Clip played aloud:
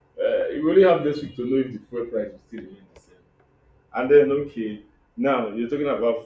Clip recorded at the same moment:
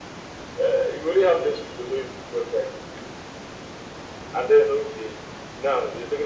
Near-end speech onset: none

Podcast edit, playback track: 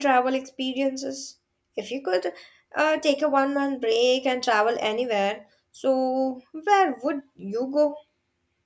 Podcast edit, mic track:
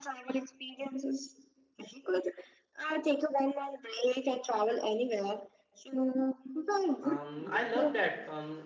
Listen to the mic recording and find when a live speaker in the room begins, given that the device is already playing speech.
7 s

